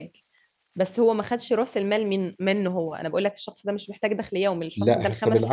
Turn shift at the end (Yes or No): Yes